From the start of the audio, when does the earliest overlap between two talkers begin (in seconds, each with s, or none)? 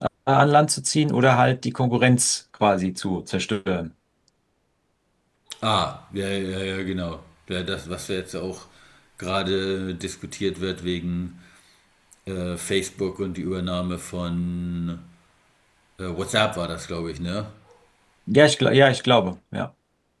none